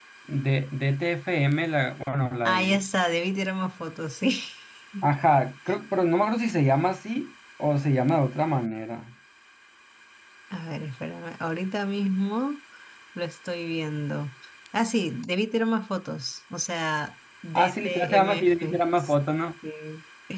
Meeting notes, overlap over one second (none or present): present